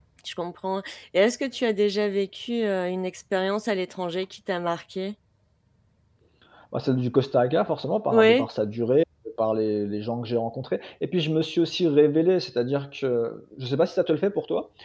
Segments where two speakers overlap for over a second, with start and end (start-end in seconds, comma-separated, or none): none